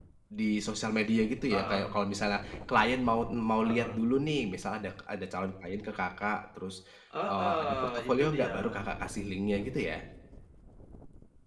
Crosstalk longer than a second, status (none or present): present